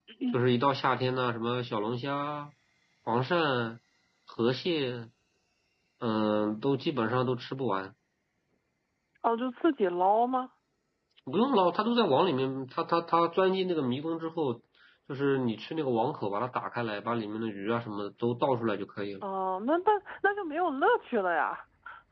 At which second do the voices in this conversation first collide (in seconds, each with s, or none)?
none